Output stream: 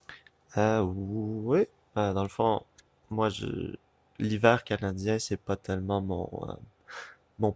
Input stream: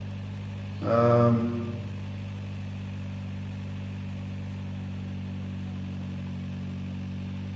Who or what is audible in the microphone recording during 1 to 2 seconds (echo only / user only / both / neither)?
user only